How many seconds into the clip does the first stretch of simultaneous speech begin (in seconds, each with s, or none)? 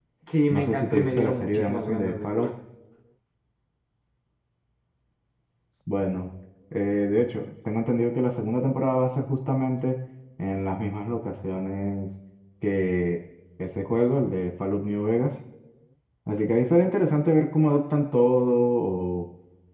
0.5 s